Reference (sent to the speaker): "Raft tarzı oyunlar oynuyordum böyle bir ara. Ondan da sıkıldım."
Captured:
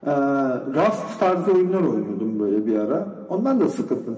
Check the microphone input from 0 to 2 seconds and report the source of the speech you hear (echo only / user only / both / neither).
echo only